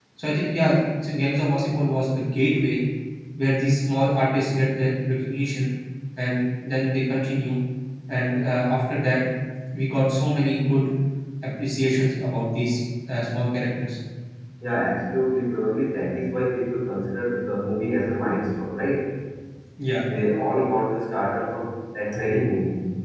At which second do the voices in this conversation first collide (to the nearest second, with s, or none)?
none